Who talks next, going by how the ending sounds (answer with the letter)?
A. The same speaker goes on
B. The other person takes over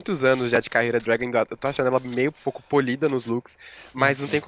A